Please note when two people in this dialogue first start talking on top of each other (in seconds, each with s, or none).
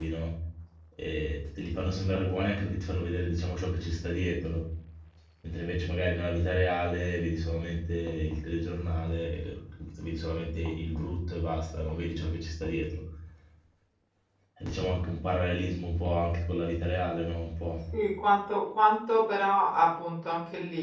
none